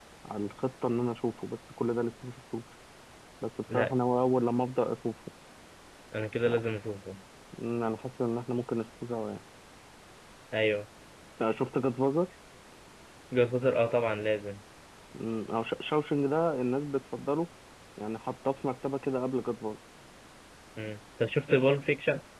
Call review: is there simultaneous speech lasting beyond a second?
No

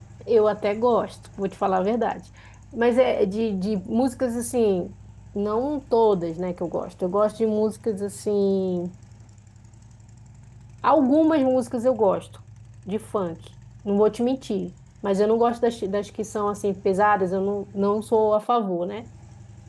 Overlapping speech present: No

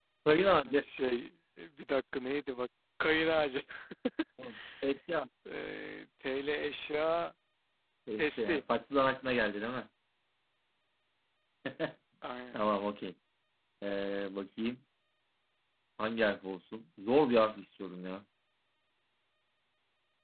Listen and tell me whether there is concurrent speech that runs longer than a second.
No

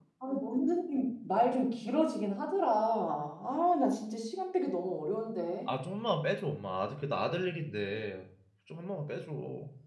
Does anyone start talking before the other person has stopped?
No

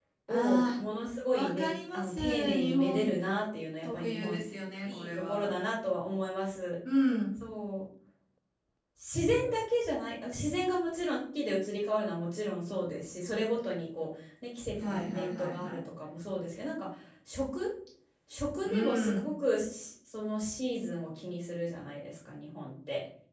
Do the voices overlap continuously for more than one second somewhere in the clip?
Yes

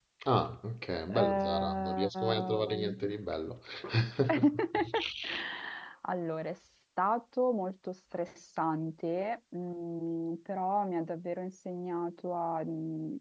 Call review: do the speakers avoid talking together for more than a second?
No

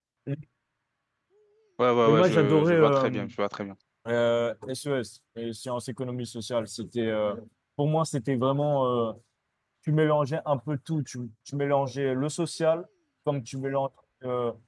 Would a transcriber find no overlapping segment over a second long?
No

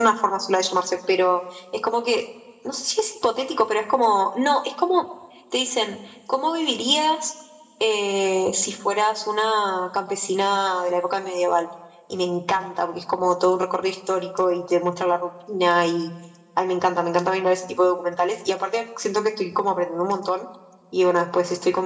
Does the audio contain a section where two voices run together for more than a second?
No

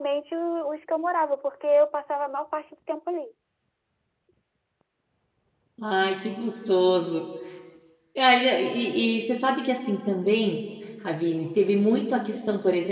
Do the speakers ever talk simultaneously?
No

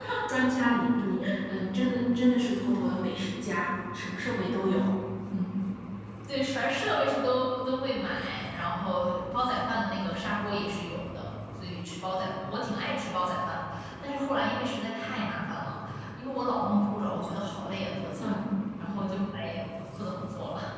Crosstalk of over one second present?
No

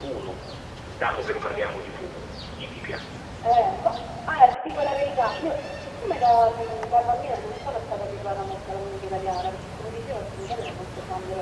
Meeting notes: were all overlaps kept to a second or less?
Yes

